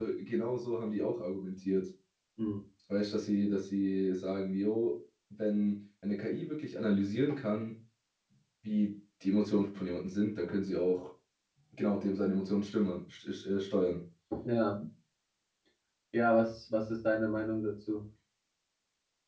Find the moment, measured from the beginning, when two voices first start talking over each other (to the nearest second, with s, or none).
none